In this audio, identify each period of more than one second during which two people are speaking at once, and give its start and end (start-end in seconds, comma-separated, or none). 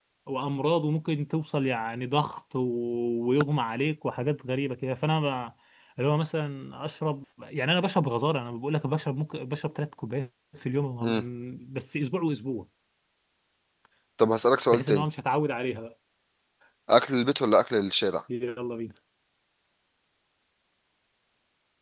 none